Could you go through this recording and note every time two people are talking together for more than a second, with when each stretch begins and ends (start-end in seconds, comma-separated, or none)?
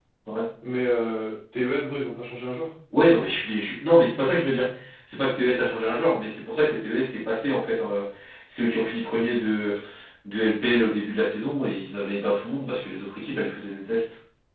none